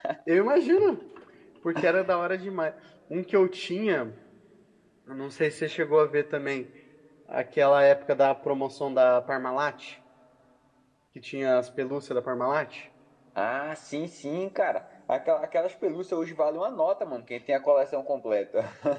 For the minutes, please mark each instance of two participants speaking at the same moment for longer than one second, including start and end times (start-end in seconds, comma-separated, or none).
none